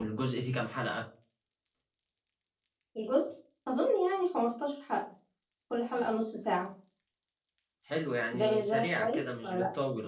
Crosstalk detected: Yes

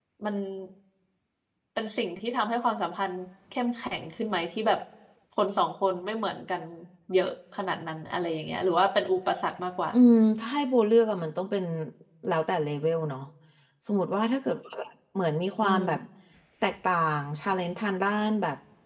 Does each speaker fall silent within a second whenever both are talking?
Yes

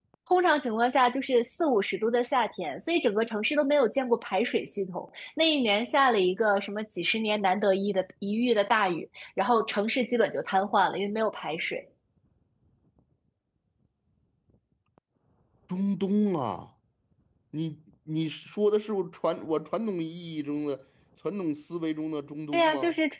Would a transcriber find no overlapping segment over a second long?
Yes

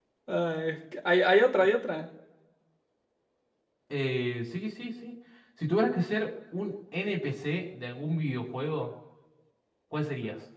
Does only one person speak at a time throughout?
Yes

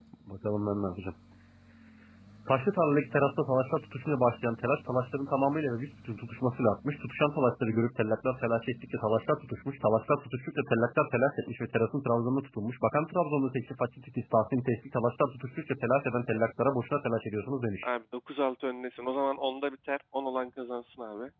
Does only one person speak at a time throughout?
Yes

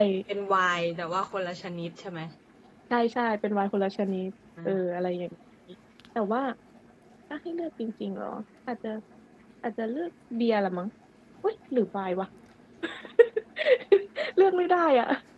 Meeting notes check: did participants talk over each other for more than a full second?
No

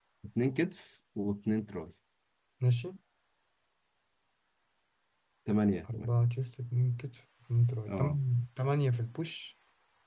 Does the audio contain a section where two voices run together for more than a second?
No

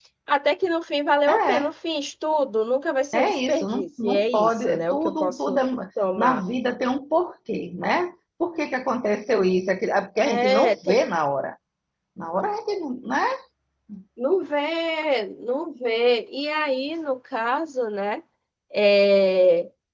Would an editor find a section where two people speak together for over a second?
Yes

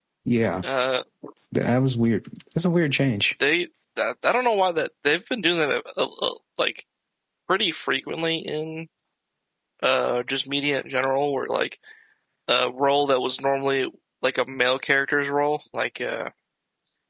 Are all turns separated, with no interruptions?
Yes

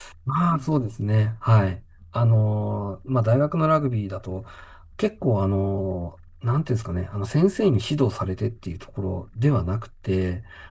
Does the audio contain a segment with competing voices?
No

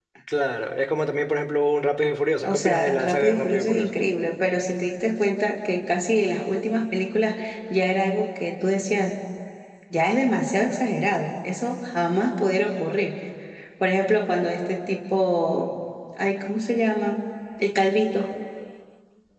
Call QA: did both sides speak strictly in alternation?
No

